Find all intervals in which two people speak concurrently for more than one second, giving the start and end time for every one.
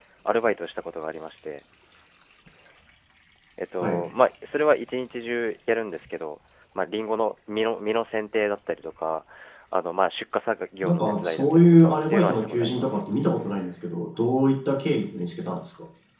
10.8-12.9

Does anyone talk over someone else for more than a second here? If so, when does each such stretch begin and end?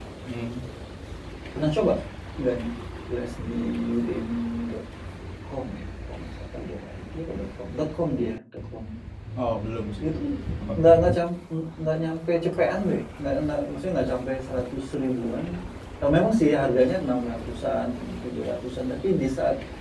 none

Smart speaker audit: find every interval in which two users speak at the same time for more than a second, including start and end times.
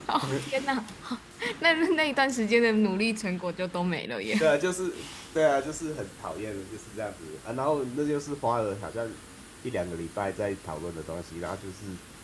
none

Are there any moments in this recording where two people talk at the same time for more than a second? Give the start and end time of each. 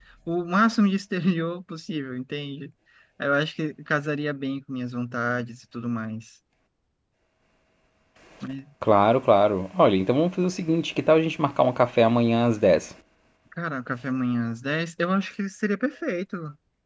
none

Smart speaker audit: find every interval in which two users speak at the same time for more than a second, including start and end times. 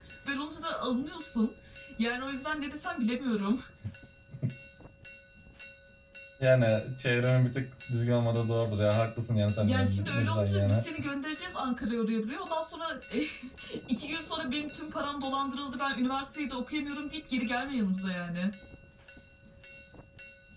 9.6-10.8

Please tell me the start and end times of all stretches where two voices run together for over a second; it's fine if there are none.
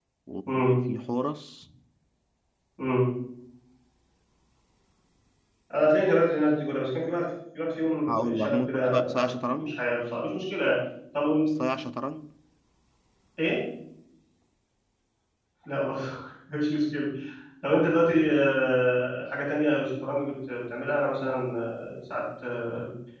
8.1-9.8

